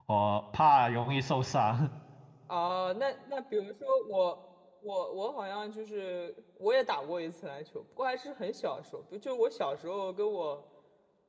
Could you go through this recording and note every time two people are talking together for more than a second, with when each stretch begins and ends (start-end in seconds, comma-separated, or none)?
none